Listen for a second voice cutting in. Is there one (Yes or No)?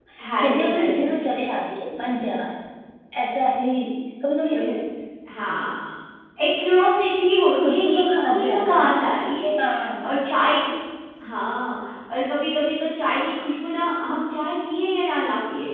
Yes